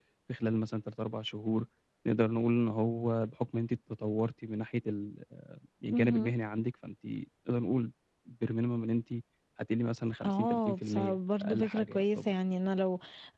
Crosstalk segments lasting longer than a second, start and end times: 10.2-12.3

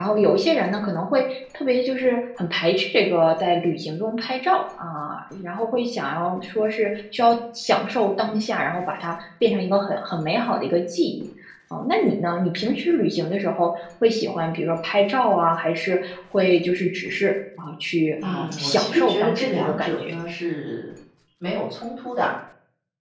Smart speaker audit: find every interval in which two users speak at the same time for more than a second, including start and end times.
18.2-20.1

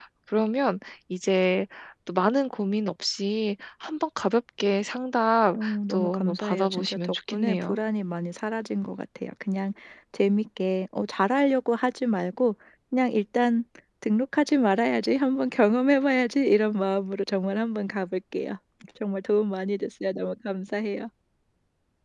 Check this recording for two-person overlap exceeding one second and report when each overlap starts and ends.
5.6-7.8

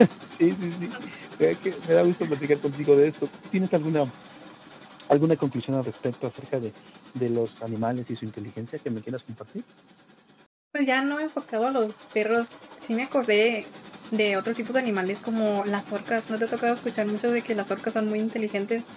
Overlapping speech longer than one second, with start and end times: none

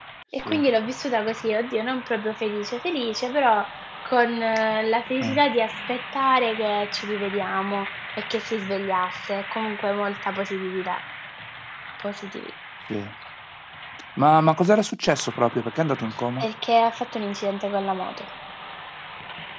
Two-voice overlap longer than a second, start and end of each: none

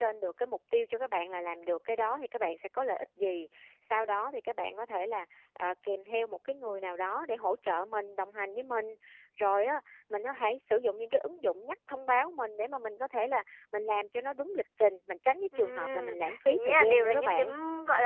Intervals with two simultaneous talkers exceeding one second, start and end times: 15.6-17.5

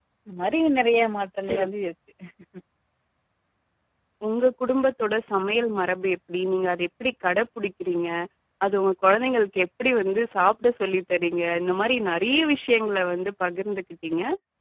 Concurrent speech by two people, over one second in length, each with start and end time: none

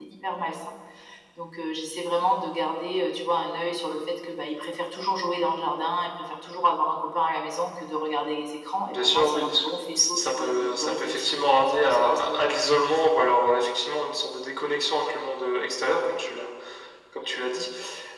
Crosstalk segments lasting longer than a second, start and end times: 8.9-12.4

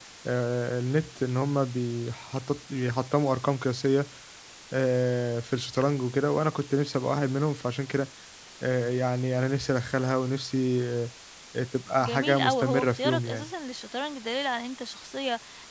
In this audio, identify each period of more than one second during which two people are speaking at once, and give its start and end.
12.0-13.5

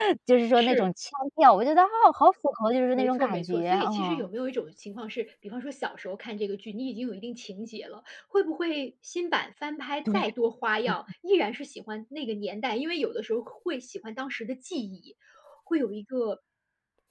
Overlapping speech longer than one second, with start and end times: 3.0-4.3

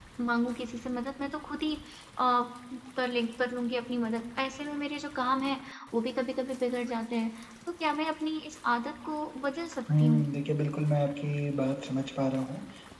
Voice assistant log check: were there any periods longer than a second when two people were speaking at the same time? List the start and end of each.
none

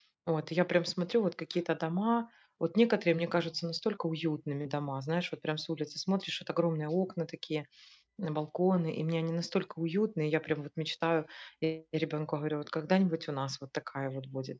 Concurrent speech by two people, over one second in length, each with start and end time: none

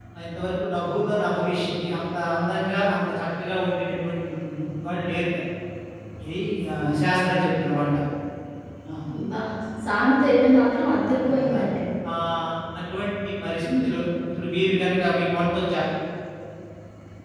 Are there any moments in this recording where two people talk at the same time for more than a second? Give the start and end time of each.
none

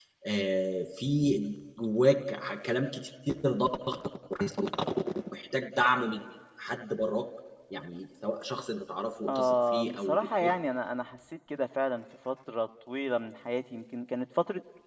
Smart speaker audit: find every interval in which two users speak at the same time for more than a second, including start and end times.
9.3-10.5

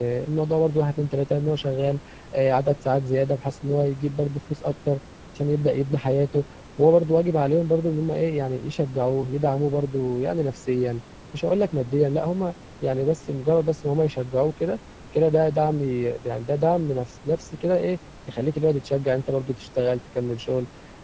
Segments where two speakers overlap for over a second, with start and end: none

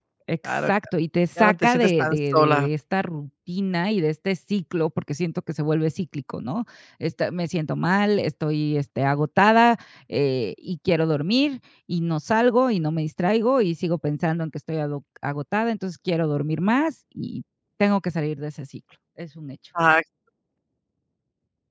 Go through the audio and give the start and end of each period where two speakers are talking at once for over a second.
1.4-2.7

